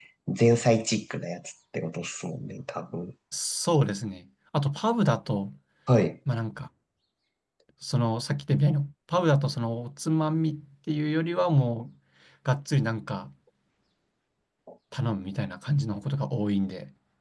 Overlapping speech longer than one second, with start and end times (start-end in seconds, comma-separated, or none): none